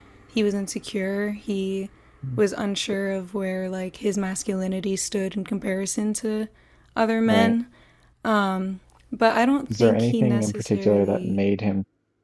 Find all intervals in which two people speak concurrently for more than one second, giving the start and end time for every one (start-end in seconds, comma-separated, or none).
9.7-11.4